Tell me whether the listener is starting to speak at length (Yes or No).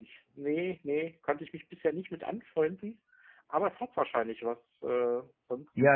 Yes